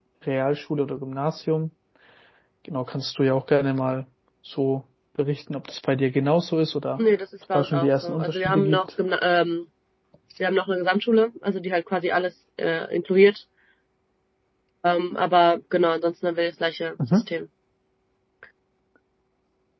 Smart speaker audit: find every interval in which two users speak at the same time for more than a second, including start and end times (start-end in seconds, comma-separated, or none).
7.5-8.8